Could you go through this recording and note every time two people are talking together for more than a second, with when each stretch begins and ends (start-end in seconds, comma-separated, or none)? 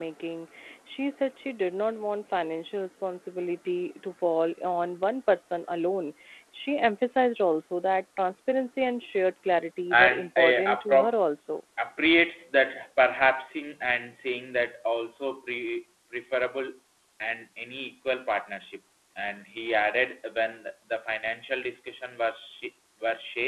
9.9-11.2